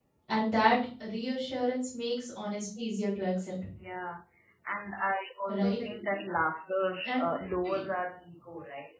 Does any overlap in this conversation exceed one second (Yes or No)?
No